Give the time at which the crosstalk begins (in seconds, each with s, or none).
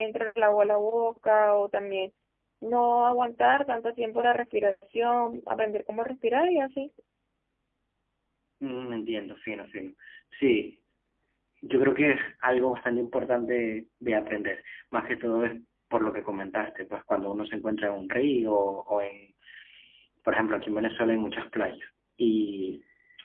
none